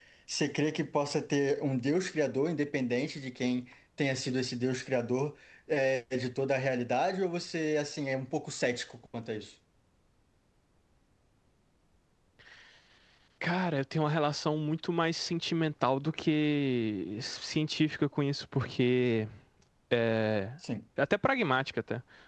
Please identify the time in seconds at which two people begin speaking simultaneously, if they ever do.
none

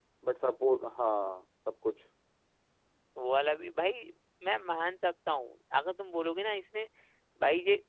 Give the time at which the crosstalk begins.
none

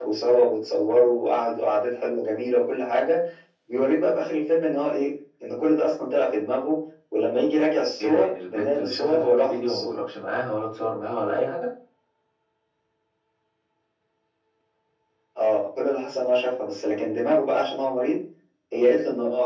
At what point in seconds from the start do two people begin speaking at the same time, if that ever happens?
8.0 s

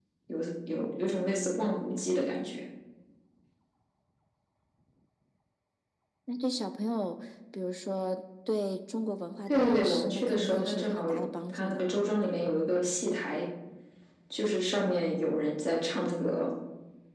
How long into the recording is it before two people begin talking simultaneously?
9.5 s

